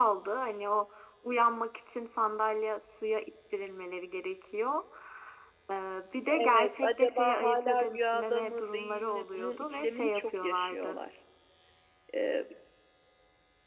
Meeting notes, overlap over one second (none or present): present